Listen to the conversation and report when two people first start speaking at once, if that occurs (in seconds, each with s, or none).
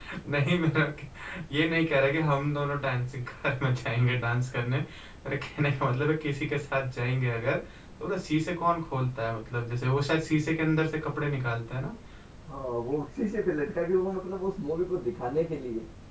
none